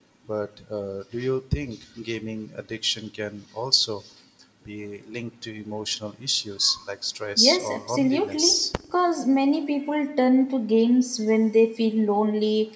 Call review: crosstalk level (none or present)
present